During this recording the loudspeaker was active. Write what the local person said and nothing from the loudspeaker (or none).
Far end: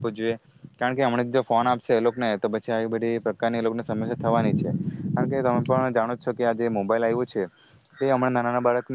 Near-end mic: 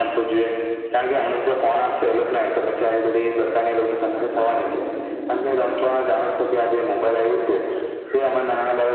none